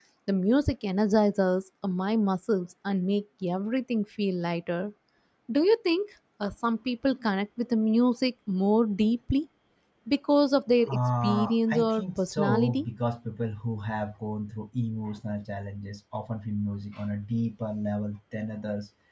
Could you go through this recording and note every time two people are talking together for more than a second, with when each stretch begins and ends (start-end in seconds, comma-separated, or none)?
10.9-12.8